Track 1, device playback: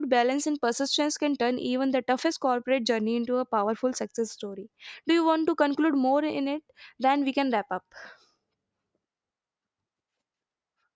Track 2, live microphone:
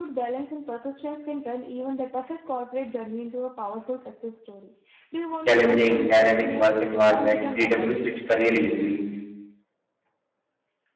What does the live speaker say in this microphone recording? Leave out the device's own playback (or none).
challenging dynamic work environment, freedom to switch career easily.